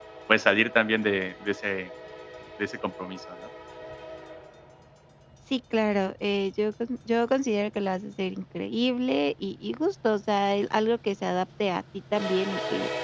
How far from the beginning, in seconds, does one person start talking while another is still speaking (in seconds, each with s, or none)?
none